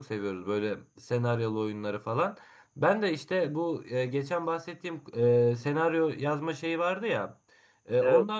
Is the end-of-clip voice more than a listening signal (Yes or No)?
No